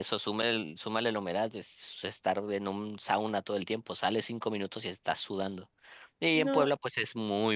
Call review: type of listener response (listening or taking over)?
listening